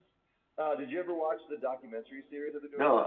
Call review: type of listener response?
taking over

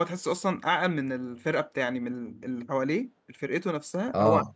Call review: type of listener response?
listening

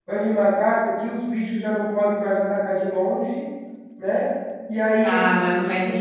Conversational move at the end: taking over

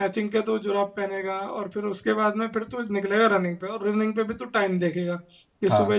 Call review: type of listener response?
listening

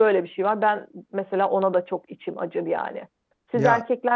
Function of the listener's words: listening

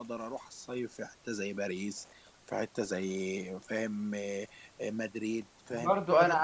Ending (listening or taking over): taking over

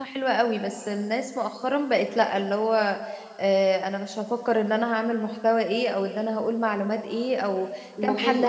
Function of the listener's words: listening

